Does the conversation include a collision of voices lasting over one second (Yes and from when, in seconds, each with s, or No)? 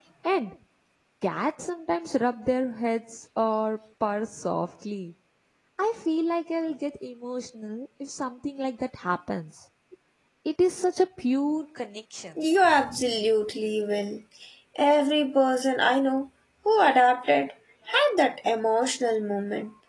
No